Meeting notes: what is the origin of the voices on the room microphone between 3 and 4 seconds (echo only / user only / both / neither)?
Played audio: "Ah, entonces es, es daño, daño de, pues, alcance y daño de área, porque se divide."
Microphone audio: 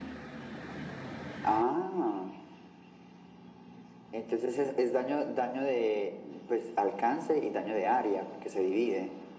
neither